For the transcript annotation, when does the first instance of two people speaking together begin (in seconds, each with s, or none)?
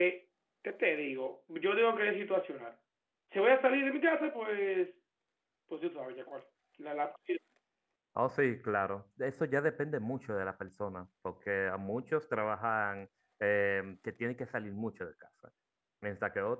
none